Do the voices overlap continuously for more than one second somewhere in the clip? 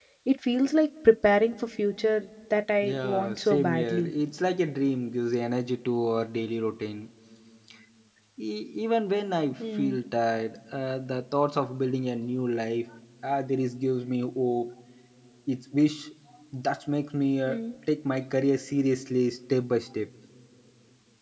Yes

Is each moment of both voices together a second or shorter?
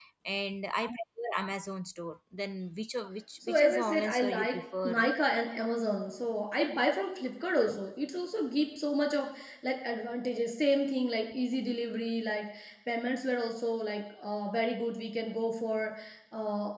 No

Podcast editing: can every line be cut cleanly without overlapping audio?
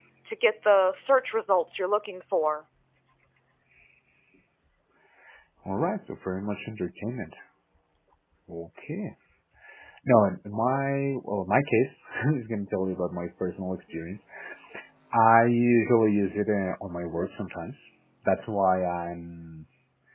Yes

